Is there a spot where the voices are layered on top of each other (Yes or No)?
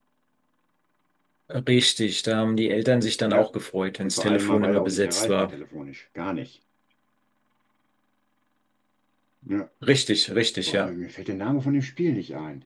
Yes